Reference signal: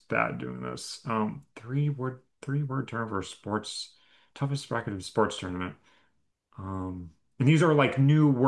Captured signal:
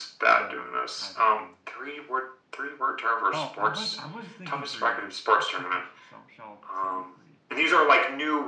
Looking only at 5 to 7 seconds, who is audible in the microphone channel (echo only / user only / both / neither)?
both